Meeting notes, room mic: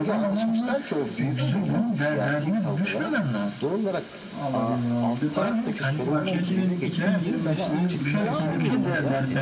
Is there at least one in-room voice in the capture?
Yes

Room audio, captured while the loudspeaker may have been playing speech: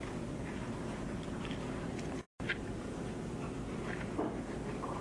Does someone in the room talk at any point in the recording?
No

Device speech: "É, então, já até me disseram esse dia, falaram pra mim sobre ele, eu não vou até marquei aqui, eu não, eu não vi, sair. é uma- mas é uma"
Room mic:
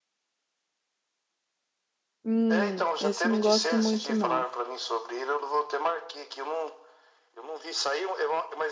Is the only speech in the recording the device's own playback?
No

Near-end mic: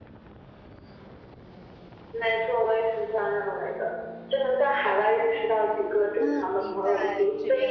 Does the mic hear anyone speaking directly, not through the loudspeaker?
Yes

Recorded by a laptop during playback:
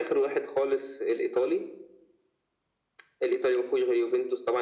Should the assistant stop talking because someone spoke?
No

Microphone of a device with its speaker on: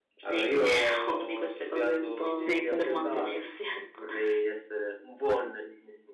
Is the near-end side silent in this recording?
No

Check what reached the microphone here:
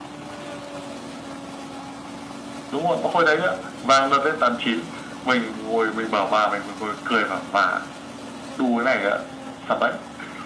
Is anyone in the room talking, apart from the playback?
No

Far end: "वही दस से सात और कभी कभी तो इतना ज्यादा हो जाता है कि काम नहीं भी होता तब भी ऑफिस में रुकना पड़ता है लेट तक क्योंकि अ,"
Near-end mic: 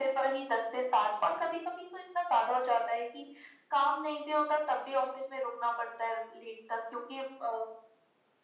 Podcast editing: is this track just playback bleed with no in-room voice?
Yes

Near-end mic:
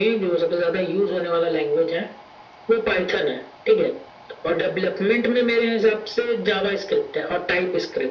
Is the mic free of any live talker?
Yes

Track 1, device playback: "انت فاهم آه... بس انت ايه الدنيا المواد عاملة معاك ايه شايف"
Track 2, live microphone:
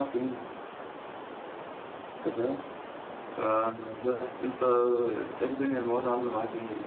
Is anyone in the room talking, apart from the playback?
No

